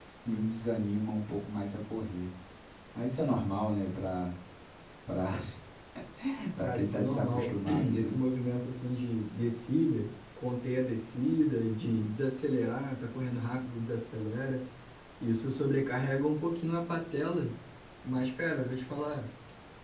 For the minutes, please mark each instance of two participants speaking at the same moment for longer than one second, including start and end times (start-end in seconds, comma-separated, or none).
6.6-8.2